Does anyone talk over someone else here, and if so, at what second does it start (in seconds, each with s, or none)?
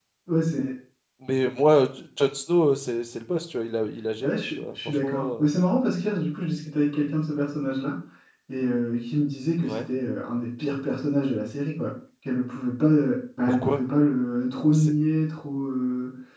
4.2 s